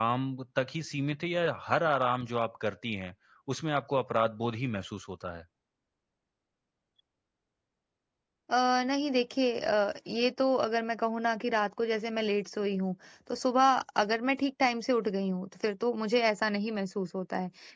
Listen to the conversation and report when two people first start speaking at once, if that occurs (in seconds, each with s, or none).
none